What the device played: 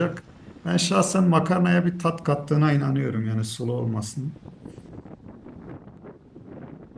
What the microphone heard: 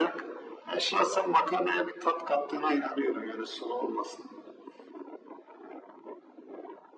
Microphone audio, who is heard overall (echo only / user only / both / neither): echo only